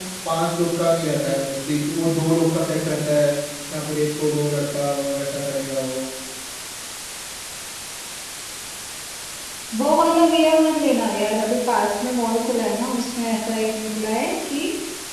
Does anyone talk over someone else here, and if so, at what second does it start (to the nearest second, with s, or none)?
none